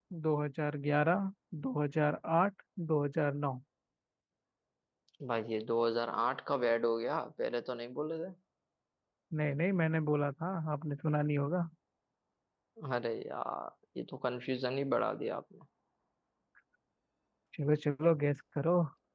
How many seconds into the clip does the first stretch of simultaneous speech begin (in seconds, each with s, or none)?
none